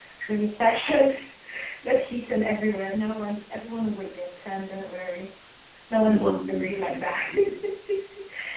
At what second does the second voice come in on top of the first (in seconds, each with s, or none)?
6.0 s